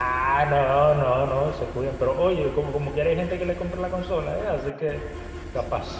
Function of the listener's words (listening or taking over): taking over